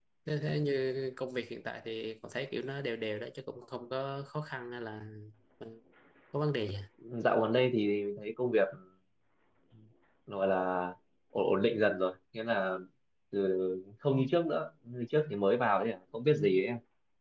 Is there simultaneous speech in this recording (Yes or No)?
No